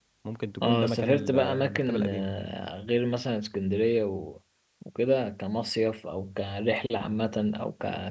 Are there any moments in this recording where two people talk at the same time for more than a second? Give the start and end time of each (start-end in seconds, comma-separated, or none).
0.6-2.3